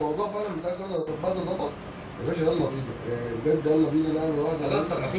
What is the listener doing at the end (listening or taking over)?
taking over